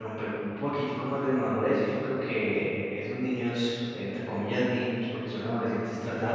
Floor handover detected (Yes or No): Yes